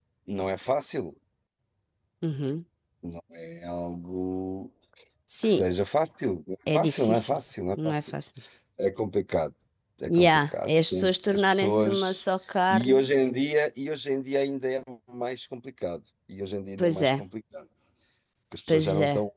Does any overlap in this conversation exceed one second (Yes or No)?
Yes